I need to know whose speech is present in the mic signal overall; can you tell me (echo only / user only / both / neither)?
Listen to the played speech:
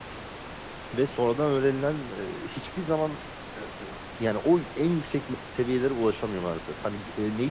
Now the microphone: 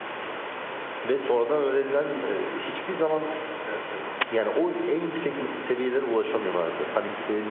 echo only